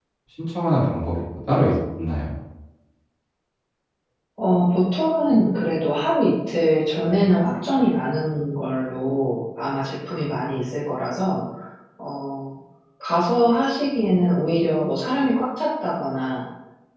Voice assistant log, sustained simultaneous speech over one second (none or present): none